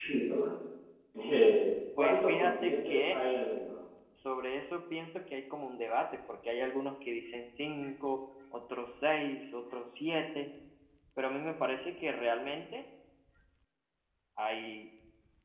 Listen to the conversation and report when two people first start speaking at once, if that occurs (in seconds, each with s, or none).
2.0 s